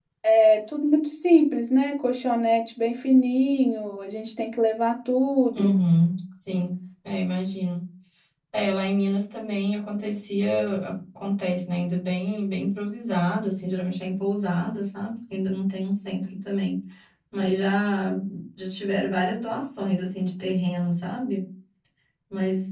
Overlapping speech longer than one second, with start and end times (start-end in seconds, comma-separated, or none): none